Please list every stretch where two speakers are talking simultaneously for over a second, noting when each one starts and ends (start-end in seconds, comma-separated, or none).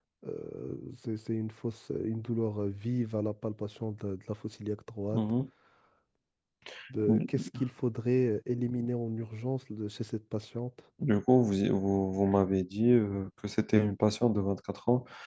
none